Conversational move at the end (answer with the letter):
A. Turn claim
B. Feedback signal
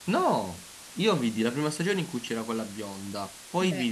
B